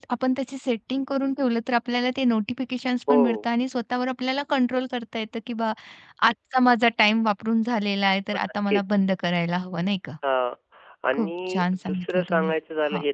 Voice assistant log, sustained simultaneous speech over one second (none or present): present